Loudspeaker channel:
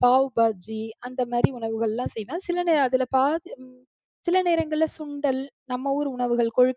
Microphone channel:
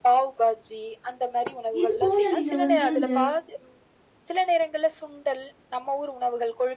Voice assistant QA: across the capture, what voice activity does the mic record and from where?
both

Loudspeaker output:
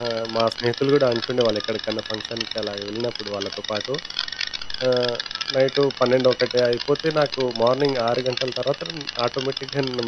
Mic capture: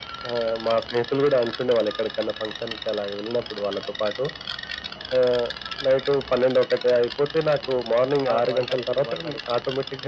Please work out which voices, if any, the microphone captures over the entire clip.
both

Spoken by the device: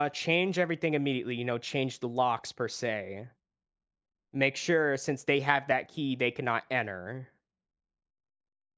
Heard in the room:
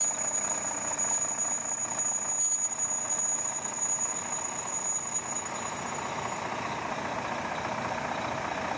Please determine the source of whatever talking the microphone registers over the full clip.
neither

